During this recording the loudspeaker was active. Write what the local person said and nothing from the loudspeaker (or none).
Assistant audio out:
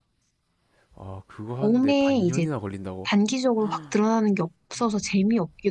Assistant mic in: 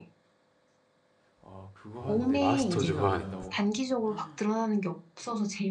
어, 마스터즈 반.